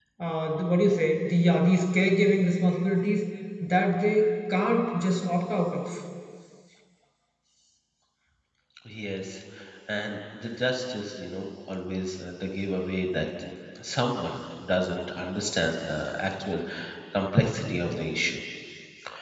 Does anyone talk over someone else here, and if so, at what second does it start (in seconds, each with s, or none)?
none